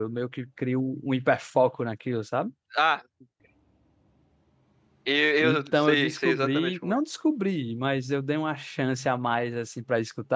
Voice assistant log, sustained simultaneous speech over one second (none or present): present